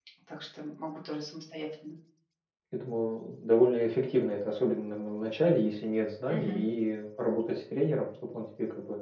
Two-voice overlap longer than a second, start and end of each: none

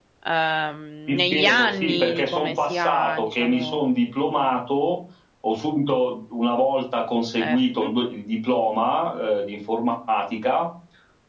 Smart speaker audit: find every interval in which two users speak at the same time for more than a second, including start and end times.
1.1-3.9

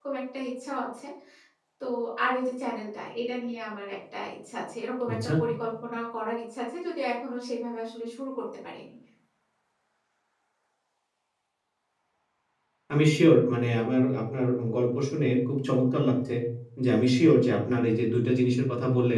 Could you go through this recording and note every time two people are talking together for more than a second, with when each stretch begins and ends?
none

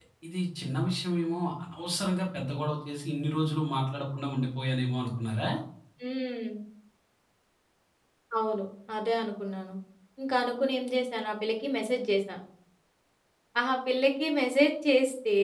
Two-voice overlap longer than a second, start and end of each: none

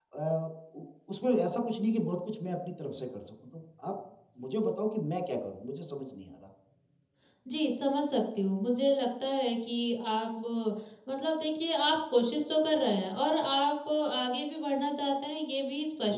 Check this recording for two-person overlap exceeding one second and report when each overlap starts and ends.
none

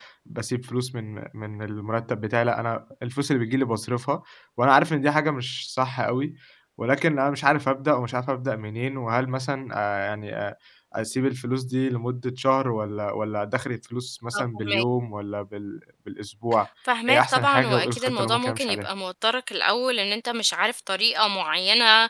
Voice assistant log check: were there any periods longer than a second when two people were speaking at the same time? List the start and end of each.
17.1-18.9

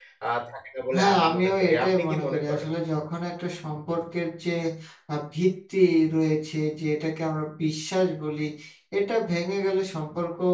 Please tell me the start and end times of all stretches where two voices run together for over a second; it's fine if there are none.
1.0-2.7

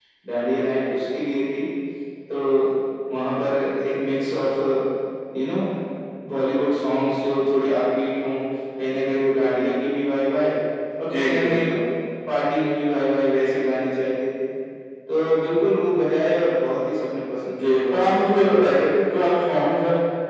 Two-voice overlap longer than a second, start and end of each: 17.6-18.9

